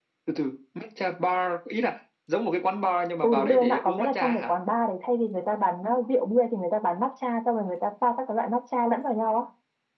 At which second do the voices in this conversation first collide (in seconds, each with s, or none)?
3.2 s